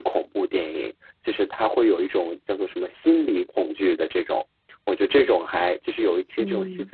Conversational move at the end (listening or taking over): listening